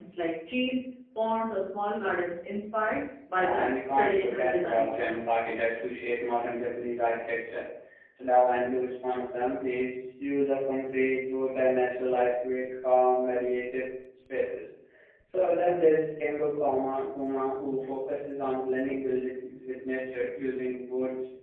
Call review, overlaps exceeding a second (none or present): present